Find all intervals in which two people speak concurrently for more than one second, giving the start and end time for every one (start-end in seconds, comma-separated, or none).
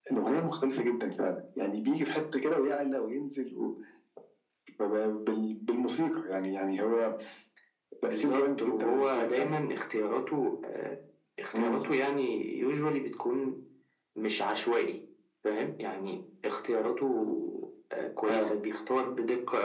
8.0-9.5